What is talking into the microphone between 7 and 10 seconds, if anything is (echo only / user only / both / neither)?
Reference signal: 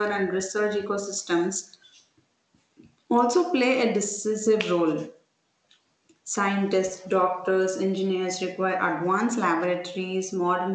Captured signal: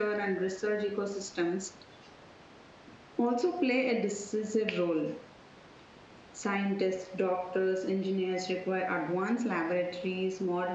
echo only